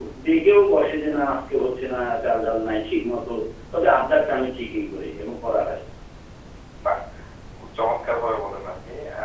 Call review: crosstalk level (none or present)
none